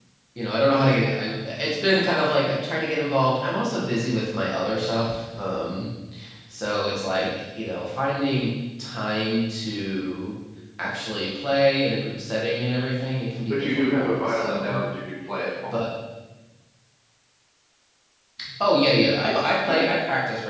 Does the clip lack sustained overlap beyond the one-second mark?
No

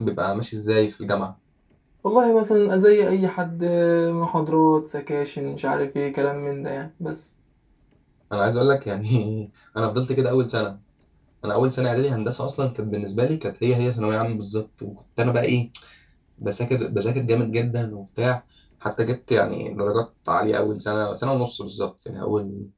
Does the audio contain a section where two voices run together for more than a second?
No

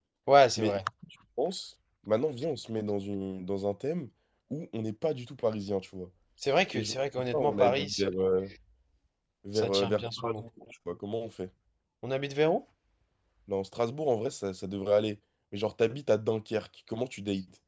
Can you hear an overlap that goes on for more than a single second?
Yes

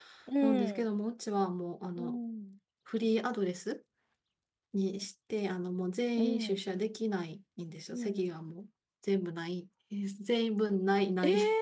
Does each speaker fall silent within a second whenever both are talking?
Yes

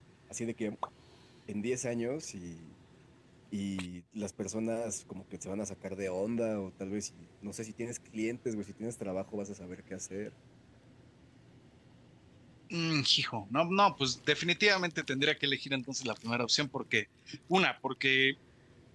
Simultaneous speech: No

